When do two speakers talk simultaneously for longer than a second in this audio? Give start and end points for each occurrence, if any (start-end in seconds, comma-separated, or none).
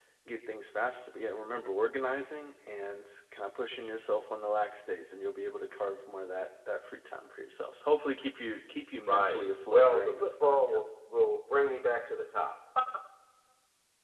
9.1-10.8